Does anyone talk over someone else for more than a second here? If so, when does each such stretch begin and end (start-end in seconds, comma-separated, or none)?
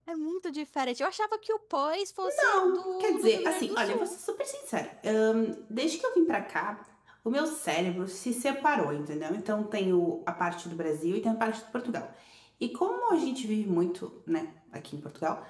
2.4-4.1